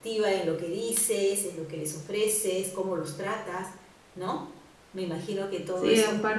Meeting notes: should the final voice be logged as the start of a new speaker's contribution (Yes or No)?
Yes